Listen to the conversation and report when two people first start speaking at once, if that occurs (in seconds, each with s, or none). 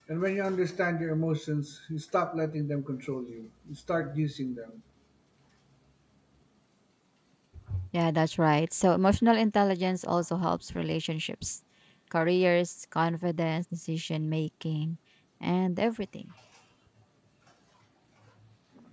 none